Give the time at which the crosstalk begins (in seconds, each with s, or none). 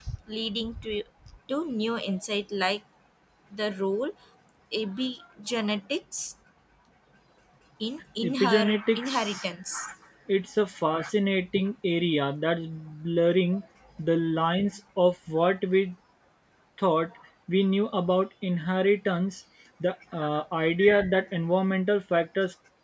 8.2 s